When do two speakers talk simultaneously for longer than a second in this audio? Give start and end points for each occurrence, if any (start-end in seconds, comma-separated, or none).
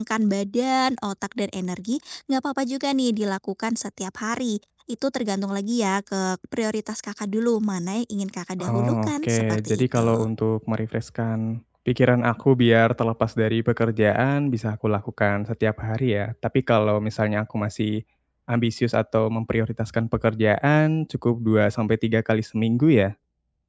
8.6-10.1